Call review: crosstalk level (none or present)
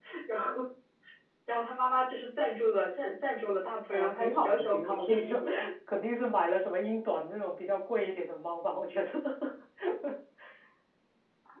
present